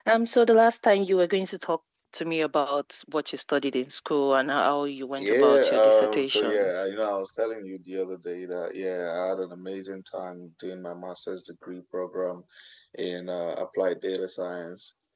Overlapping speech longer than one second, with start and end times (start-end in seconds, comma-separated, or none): 5.2-6.7